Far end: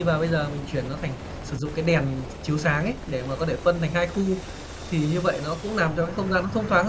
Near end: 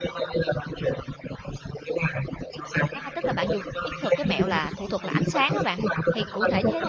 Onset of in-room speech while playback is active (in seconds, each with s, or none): 2.9 s